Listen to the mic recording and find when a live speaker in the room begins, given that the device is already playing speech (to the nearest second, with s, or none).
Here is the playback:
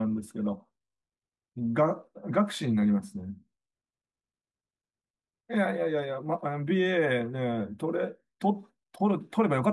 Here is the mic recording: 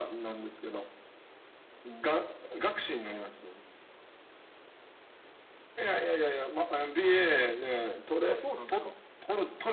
8 s